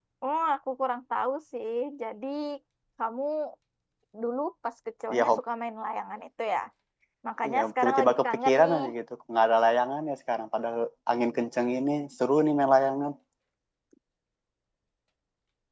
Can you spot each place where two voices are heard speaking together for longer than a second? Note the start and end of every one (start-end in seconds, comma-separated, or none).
7.5-8.8